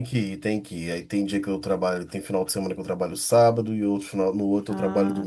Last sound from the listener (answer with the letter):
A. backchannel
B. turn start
B